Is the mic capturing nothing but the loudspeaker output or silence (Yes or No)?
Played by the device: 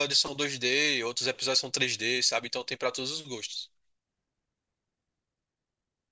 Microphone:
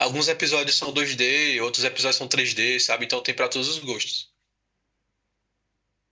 Yes